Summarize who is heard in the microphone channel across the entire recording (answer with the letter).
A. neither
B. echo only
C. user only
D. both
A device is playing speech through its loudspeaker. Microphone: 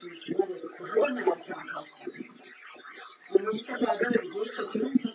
B